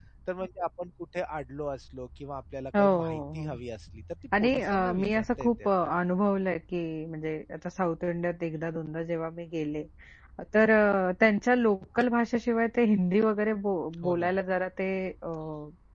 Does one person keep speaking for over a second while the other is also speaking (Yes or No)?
Yes